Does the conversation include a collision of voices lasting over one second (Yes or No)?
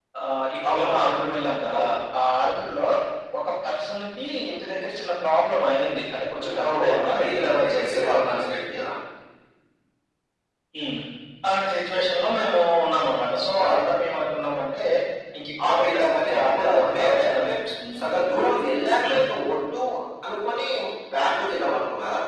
Yes